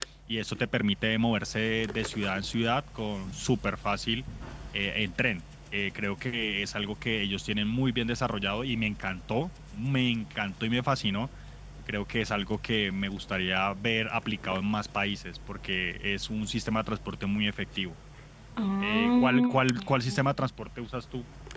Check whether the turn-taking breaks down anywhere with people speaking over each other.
Yes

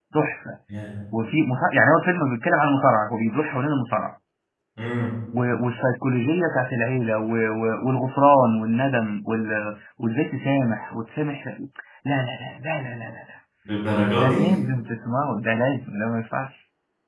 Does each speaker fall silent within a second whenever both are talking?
Yes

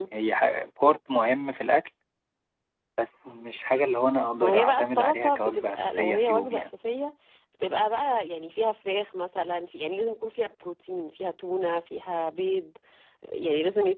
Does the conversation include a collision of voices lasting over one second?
Yes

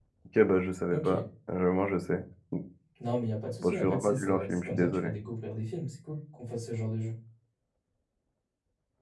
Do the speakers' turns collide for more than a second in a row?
Yes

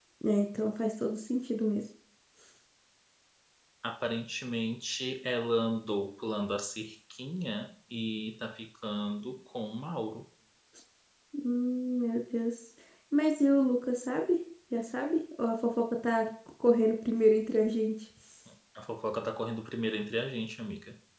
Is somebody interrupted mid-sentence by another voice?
No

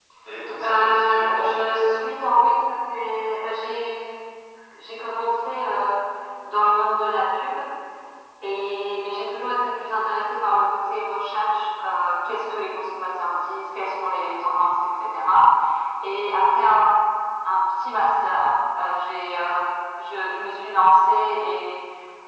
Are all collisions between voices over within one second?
No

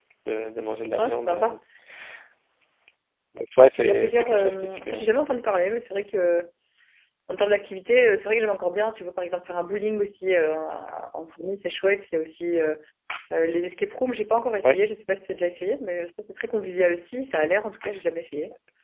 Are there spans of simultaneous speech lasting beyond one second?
Yes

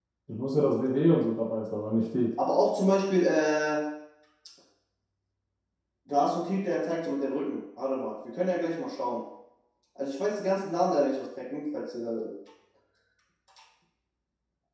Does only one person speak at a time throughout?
Yes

